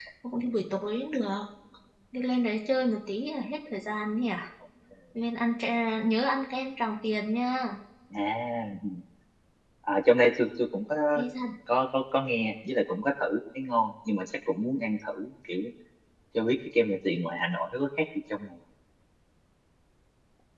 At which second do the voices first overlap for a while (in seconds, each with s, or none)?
none